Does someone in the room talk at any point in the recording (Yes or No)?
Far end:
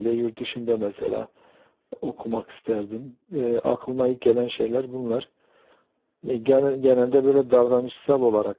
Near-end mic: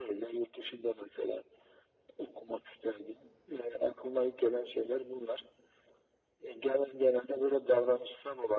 No